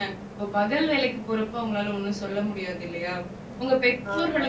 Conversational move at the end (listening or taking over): listening